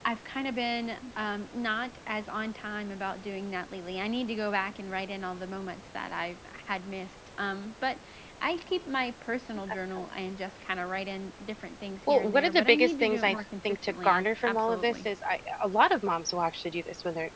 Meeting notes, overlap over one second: present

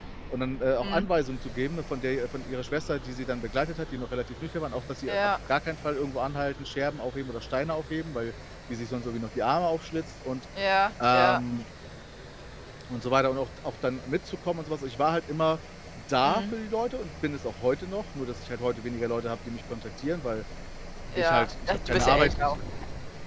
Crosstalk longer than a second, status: present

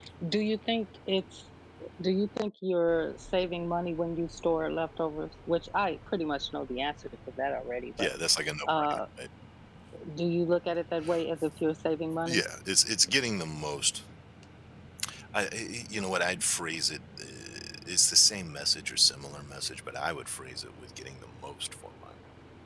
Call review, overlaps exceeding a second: none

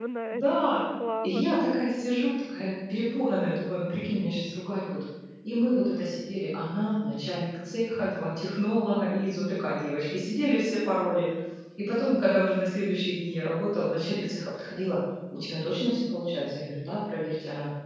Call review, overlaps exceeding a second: none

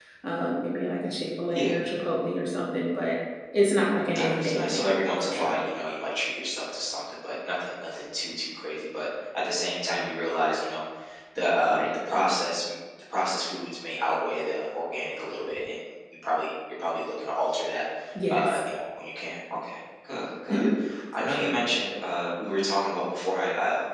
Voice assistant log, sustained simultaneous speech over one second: present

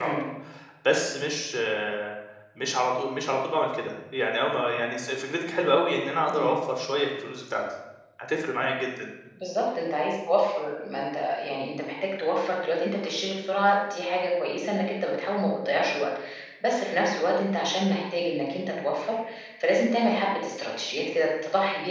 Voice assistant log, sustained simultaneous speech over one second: none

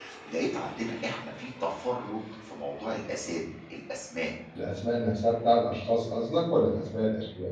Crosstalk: none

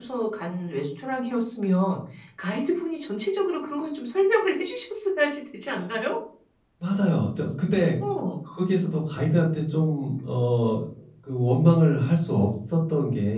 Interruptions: none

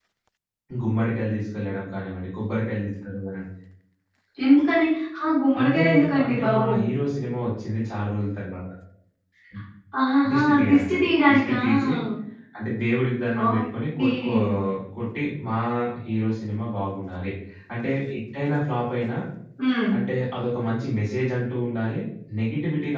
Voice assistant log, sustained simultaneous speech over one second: present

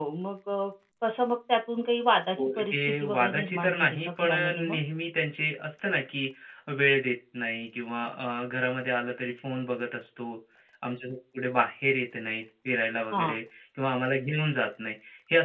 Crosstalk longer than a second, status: present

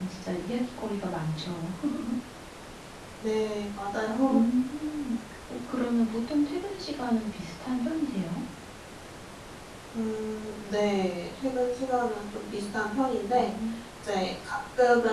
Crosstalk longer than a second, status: none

